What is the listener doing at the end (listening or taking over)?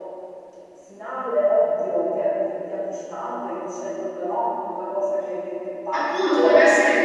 taking over